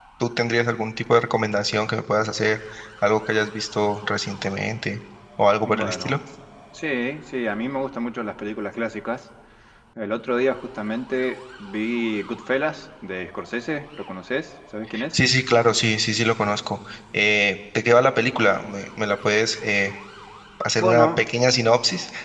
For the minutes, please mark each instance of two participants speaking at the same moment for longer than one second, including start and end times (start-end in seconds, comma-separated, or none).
none